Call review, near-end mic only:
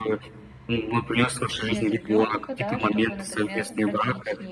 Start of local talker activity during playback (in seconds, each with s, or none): 1.6 s